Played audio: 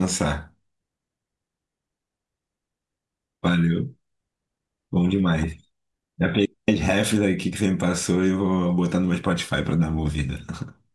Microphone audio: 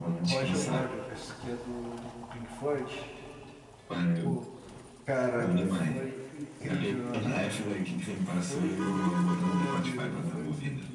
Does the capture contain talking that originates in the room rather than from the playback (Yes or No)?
Yes